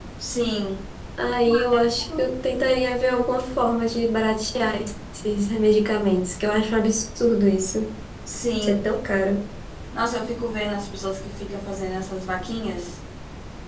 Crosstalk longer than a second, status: none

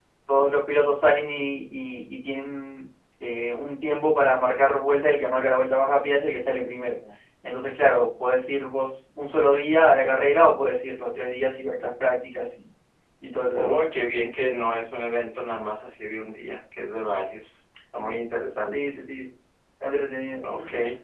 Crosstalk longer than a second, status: none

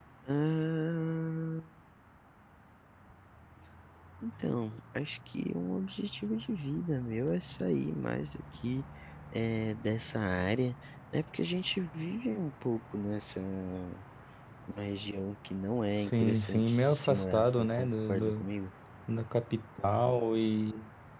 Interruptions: present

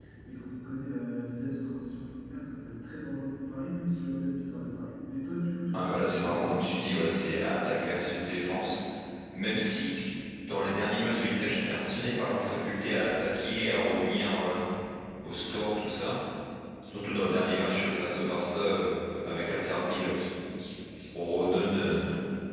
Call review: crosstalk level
present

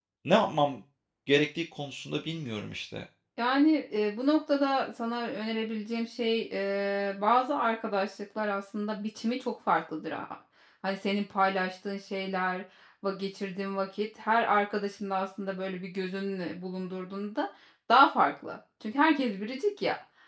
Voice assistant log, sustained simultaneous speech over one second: none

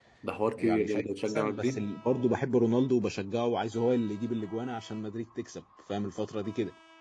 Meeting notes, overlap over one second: present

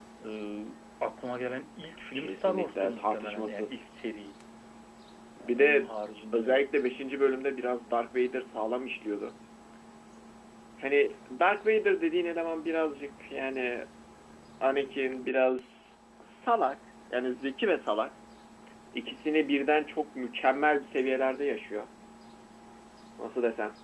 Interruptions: present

